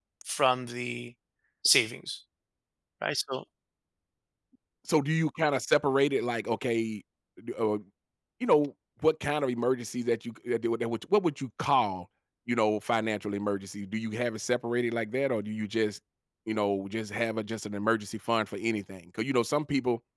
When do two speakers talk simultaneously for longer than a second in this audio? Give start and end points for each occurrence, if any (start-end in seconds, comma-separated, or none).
none